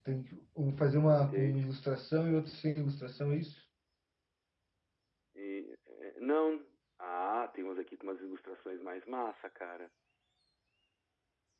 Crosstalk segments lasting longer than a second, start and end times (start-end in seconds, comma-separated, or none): none